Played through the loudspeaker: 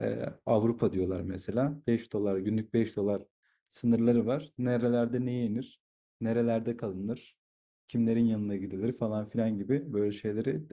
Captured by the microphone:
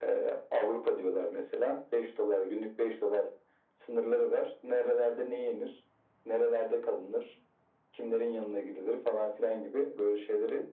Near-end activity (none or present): none